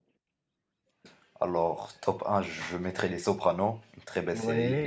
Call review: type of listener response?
taking over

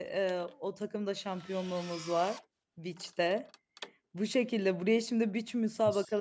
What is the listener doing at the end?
listening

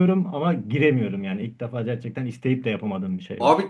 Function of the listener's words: taking over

